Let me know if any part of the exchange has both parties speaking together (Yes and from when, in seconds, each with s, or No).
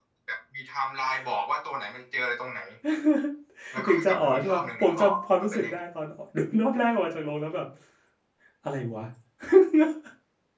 Yes, from 3.9 s